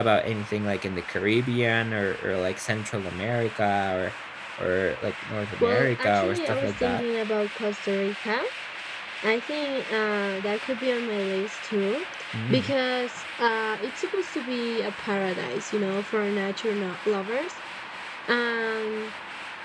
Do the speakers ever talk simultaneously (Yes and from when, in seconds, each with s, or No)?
Yes, from 5.6 s